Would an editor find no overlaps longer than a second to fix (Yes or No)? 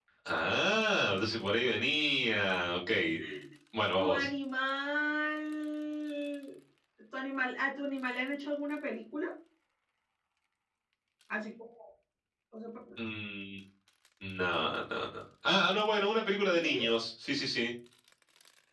Yes